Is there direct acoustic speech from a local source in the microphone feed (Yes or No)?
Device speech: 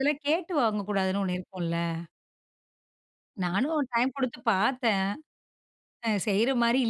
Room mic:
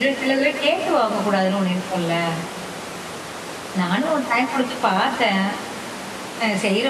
No